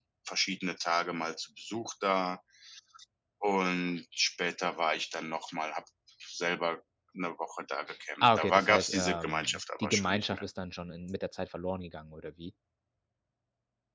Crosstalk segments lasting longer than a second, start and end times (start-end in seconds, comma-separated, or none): 8.2-10.4